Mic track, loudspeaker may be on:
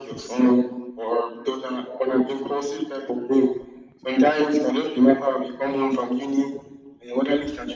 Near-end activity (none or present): none